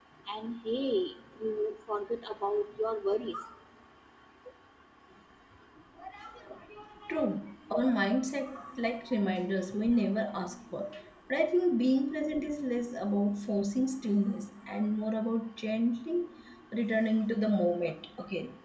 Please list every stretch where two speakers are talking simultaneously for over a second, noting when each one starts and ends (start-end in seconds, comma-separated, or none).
none